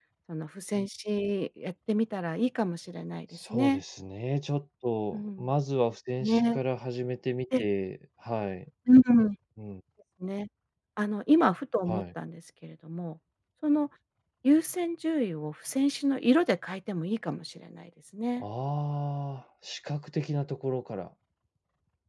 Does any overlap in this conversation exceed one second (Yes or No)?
No